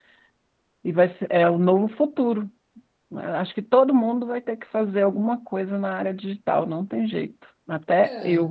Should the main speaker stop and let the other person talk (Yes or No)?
Yes